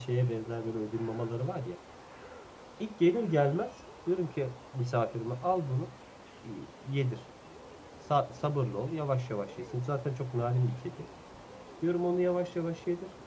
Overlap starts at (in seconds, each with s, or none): none